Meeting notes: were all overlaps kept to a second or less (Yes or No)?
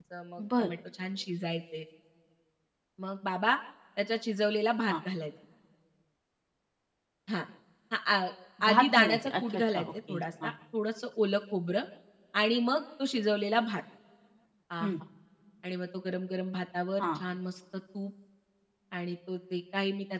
No